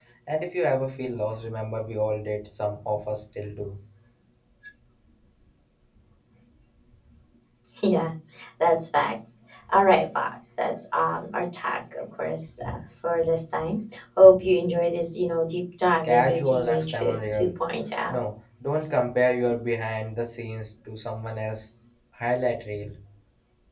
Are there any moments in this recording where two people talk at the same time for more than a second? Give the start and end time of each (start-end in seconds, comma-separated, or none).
16.0-17.5